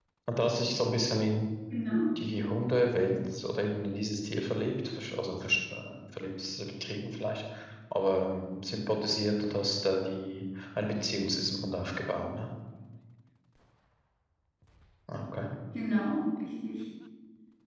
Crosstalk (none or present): none